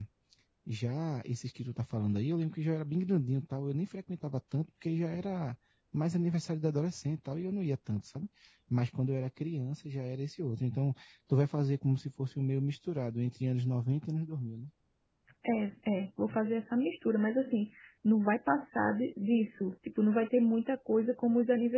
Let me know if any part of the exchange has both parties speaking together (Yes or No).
No